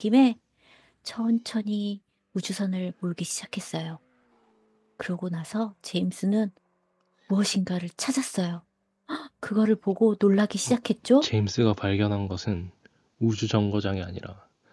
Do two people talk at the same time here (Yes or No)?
No